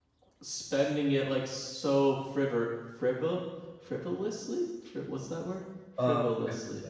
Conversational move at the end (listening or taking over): taking over